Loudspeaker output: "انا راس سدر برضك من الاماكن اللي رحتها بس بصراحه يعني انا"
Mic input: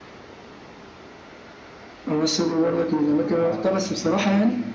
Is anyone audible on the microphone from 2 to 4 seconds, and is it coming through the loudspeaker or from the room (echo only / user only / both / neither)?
both